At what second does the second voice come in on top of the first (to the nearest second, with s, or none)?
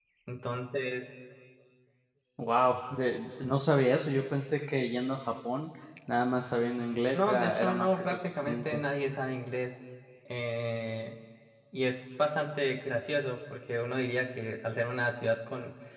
7 s